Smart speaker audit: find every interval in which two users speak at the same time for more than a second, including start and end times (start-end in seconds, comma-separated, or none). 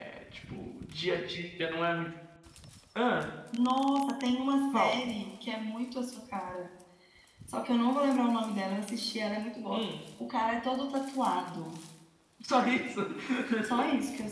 none